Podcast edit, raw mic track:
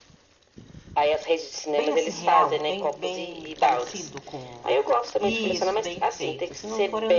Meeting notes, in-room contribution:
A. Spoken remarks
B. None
A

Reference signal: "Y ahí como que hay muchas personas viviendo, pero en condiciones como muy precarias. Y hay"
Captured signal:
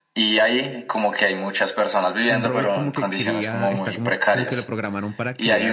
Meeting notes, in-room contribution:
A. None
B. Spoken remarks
B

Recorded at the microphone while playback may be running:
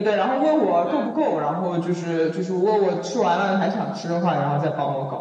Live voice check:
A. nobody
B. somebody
B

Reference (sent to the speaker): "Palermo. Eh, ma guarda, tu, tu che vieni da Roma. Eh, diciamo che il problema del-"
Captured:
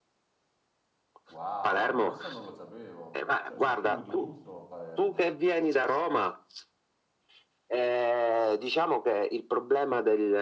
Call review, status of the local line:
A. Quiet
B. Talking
B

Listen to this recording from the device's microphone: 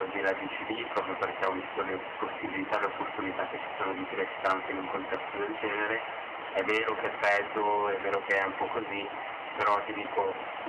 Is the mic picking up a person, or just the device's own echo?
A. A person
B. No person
B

